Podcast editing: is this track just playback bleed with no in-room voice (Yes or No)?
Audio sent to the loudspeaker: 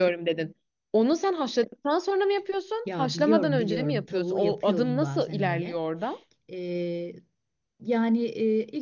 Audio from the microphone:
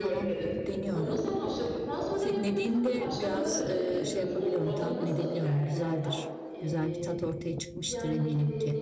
No